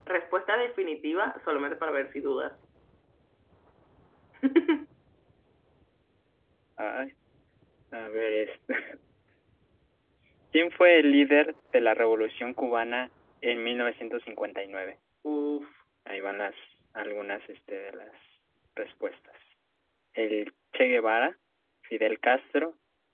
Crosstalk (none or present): none